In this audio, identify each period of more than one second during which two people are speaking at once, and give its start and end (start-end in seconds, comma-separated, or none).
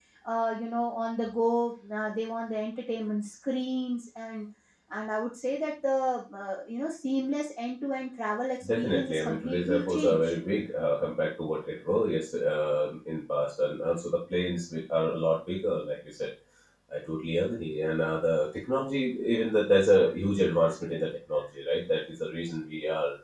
8.6-10.4